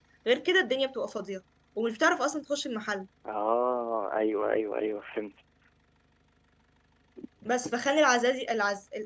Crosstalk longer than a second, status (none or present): none